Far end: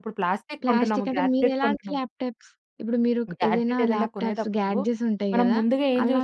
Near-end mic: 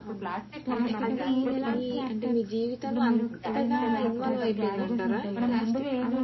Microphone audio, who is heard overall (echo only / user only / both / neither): both